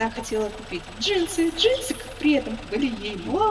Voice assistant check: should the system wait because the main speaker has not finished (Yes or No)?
Yes